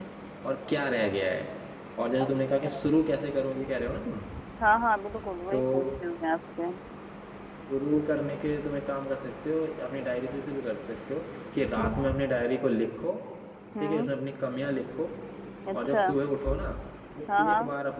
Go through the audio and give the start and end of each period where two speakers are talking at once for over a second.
none

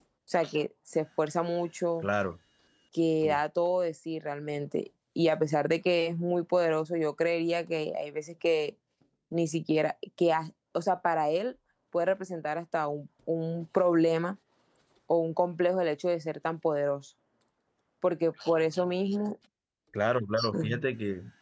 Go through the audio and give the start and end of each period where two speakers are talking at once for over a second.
none

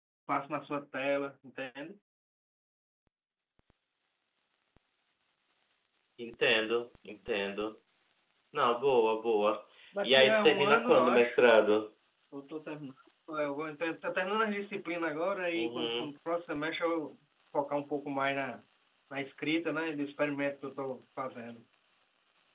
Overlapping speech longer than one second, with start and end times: 10.0-11.4

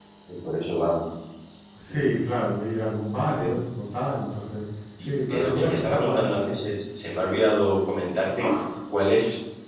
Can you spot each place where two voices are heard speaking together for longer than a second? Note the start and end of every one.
5.0-6.6

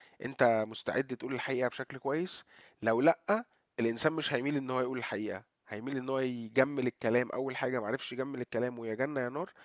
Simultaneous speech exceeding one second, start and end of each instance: none

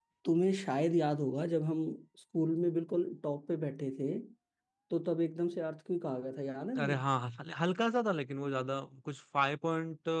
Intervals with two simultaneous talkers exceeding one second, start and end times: none

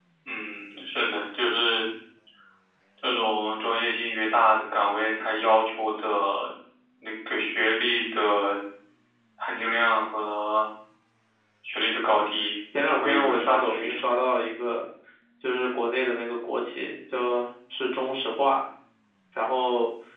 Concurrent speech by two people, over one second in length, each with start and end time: 12.8-14.0

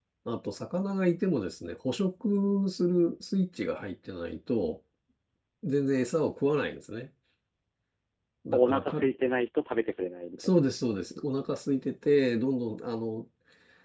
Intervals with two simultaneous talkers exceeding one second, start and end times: none

